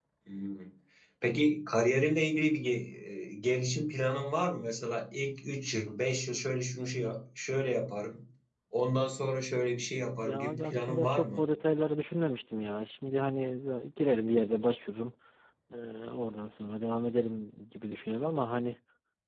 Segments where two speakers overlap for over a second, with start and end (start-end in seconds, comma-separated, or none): 10.2-11.4